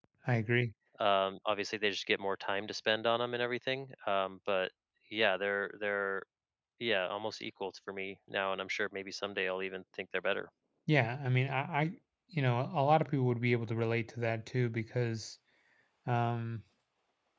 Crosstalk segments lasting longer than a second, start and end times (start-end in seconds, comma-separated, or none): none